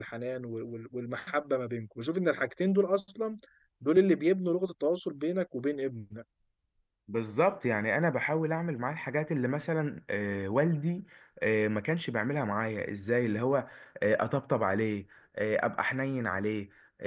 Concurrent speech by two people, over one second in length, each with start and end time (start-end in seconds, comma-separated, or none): none